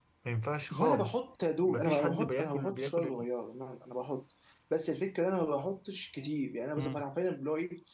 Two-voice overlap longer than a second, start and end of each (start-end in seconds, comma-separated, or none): 1.6-3.1